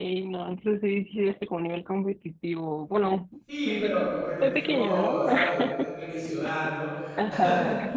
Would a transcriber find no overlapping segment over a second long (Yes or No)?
No